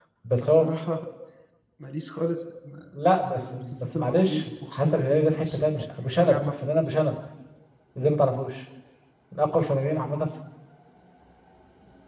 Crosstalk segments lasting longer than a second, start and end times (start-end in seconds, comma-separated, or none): 3.4-6.4